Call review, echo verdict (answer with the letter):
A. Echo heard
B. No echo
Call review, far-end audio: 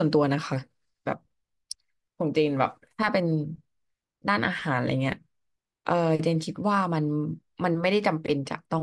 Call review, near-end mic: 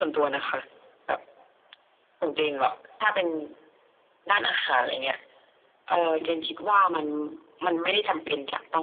A